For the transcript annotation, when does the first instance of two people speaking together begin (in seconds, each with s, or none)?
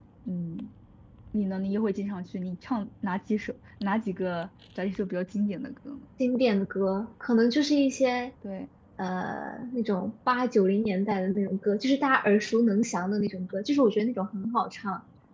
none